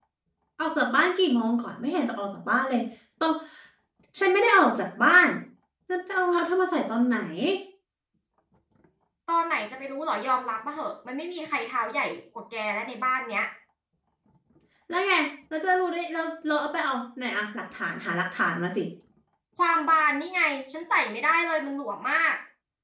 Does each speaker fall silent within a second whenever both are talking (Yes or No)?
Yes